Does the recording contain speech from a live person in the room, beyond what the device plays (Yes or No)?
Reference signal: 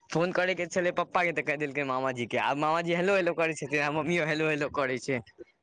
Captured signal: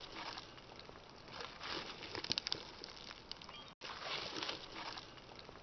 No